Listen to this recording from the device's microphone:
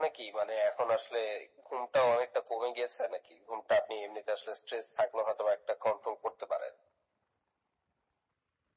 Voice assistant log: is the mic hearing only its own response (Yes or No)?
Yes